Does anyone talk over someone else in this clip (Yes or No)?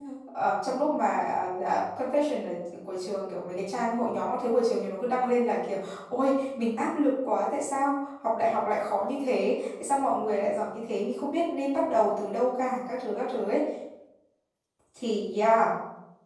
No